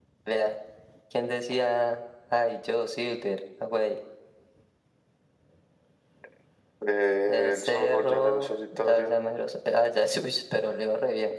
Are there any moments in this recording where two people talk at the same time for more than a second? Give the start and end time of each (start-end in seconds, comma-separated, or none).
7.3-9.1